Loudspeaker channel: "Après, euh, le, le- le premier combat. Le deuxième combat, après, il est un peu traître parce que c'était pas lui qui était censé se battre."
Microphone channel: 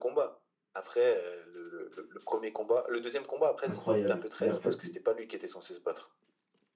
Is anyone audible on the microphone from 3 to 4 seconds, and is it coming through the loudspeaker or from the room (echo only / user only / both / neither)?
both